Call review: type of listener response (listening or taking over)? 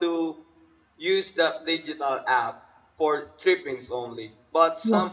listening